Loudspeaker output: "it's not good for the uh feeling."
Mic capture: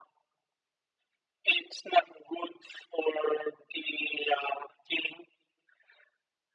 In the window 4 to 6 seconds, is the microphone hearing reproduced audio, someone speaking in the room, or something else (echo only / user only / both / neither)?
echo only